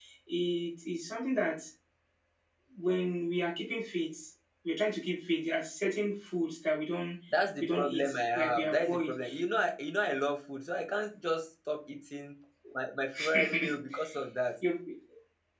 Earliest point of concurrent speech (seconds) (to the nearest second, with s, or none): 8 s